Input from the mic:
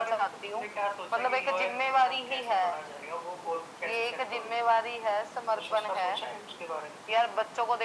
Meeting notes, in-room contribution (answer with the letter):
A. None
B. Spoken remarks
A